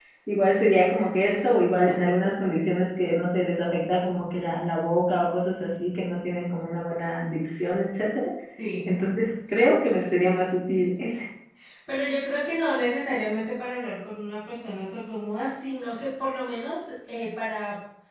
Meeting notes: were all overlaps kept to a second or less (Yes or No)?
Yes